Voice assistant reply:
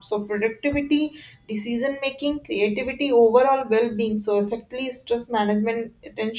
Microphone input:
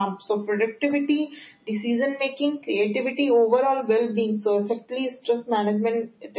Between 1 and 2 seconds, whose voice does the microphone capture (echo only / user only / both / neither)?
echo only